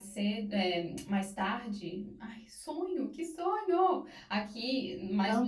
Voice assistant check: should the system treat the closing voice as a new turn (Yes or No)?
No